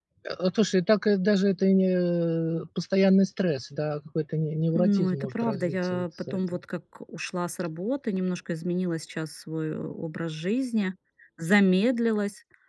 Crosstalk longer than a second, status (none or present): present